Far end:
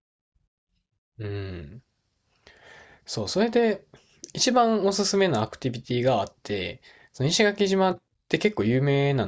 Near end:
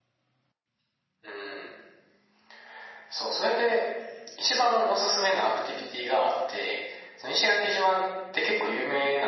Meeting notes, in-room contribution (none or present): none